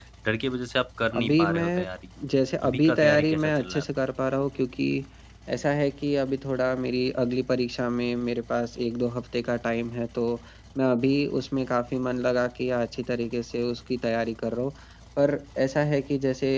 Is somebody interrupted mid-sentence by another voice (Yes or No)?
Yes